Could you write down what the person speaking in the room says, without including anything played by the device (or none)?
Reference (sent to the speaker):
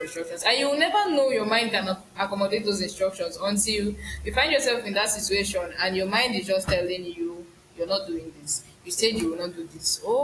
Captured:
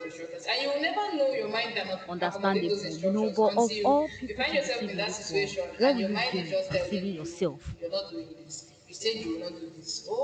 understandable, you know. But of all people to deceive in this world, what will you gain deceiving yourself,